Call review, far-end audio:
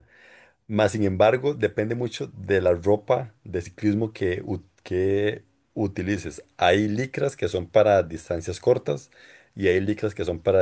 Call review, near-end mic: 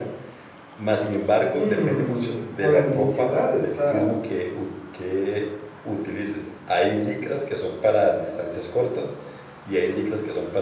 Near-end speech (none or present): present